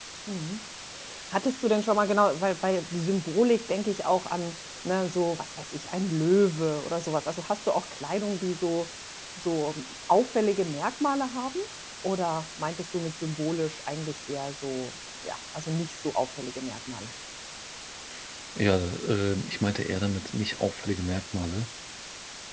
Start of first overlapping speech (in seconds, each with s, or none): none